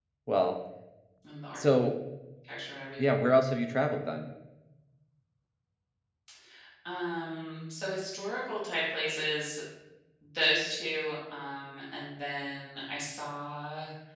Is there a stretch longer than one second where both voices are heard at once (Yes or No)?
No